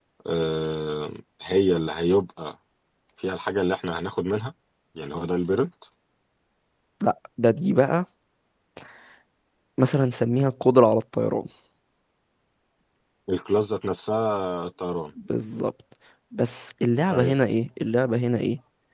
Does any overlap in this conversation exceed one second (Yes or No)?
No